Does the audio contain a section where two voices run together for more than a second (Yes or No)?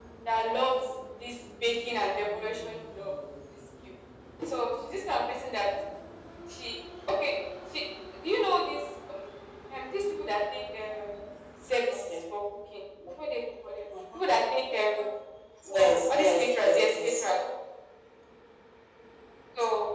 Yes